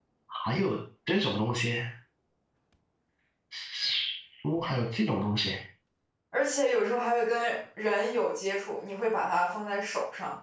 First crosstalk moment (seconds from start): none

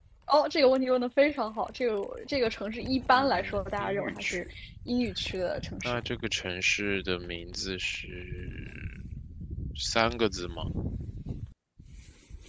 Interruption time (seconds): 3.1 s

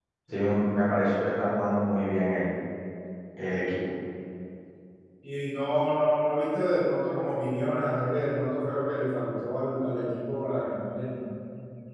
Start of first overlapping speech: none

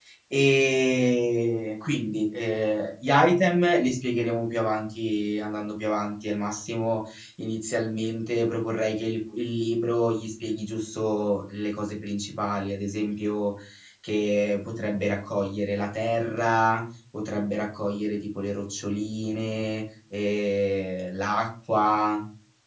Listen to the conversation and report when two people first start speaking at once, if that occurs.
none

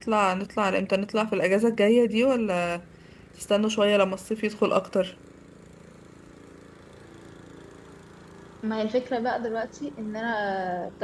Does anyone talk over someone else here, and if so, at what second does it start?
none

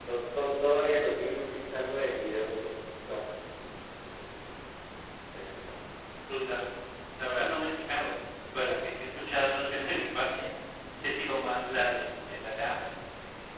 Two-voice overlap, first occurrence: none

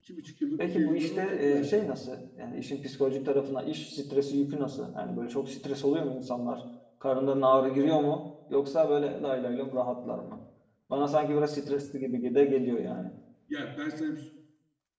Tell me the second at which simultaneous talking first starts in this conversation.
0.6 s

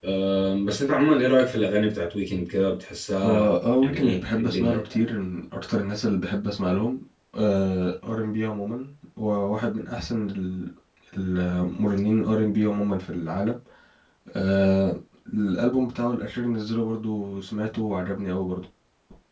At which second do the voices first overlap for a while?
3.2 s

